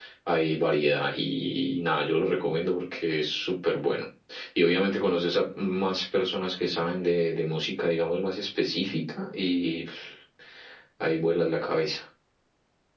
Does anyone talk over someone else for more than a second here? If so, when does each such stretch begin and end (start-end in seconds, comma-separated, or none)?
none